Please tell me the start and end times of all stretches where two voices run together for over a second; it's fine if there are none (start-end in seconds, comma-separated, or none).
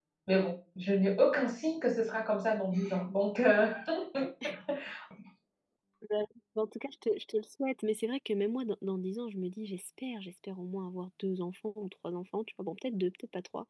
none